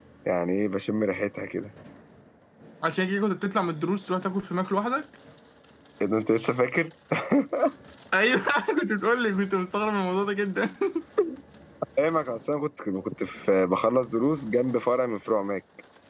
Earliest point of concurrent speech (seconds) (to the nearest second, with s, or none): none